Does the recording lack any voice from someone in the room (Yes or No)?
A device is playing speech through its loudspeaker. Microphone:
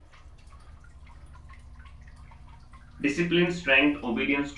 No